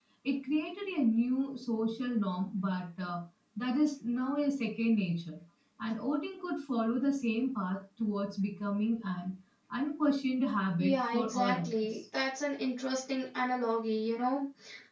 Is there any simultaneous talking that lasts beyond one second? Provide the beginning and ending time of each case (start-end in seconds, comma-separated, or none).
10.8-12.0